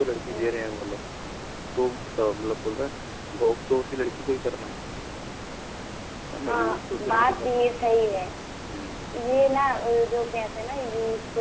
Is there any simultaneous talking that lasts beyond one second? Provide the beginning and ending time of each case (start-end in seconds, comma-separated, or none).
6.5-7.7